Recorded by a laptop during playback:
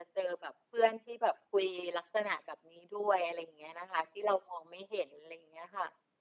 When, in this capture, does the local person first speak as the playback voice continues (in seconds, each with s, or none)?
none